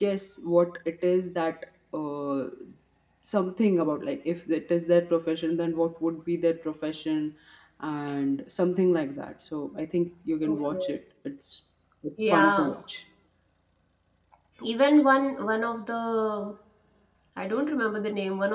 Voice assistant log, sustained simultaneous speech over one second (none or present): none